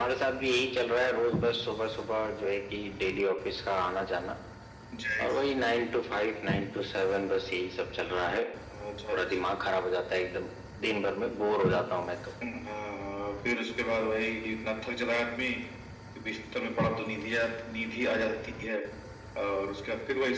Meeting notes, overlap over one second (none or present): none